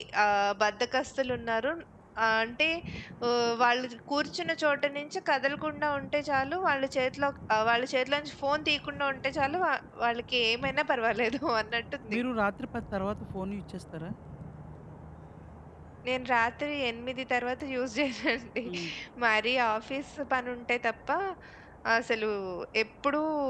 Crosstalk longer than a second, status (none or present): none